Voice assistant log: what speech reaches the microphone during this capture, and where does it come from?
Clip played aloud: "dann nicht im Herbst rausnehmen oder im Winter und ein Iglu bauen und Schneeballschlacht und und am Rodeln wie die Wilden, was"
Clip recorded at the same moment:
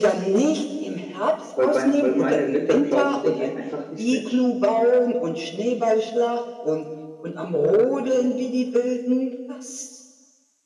both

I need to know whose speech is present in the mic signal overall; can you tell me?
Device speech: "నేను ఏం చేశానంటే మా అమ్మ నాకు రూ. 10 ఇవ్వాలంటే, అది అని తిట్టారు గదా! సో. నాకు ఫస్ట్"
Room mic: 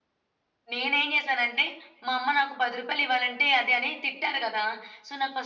echo only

